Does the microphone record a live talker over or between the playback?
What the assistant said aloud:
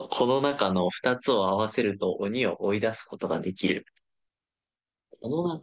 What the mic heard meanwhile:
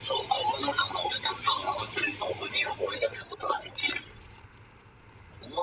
No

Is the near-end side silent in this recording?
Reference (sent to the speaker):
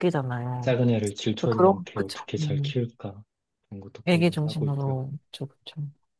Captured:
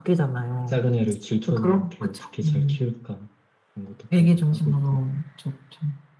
Yes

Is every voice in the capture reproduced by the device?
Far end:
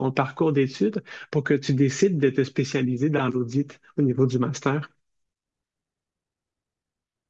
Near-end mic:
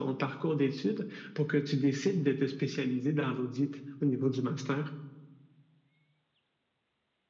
Yes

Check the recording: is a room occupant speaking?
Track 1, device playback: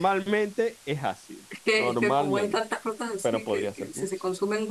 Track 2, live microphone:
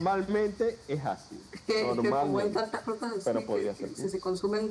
No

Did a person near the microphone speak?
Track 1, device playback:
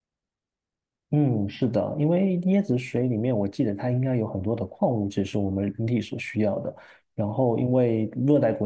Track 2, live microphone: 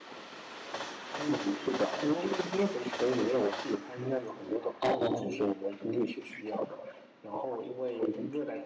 Yes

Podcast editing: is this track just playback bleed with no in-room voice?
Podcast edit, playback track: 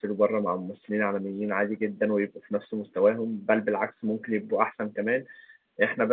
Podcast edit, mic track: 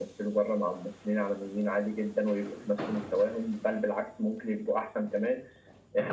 Yes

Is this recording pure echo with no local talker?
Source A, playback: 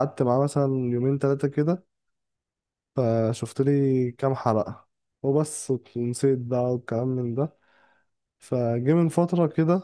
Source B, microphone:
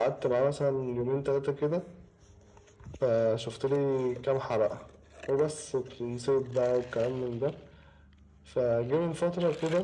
Yes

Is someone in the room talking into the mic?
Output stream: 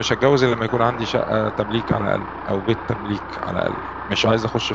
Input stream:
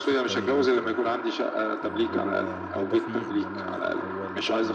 Yes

